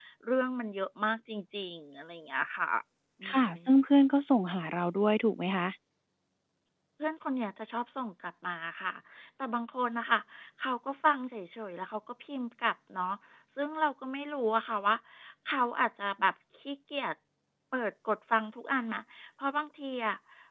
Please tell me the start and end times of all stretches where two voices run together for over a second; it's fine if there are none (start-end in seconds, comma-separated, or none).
none